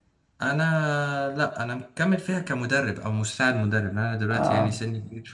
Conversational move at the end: listening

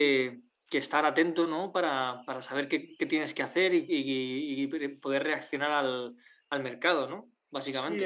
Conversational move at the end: taking over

